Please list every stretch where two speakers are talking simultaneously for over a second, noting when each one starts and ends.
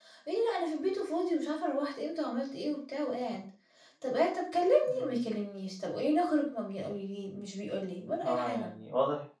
none

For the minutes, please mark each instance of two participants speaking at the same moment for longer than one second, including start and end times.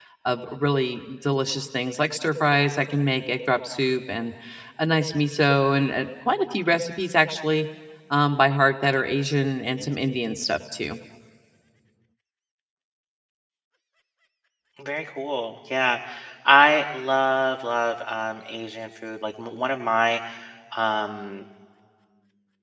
none

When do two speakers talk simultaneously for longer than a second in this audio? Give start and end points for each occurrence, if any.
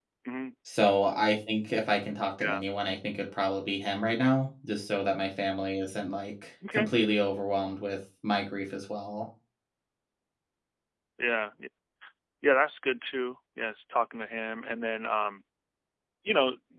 none

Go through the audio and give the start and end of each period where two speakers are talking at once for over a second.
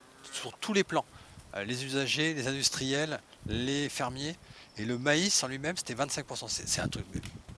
none

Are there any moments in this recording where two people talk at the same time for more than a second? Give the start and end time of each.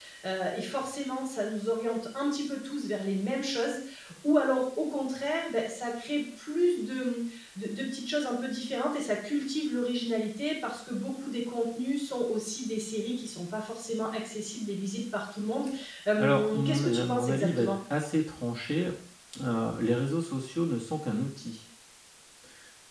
16.2-17.7

